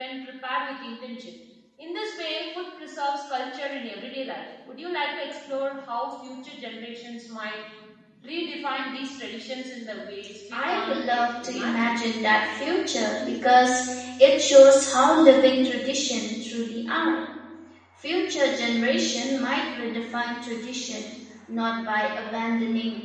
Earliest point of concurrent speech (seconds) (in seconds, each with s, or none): 10.5 s